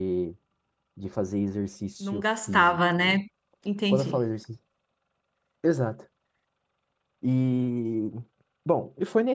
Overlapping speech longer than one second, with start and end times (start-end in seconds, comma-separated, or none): 2.0-3.2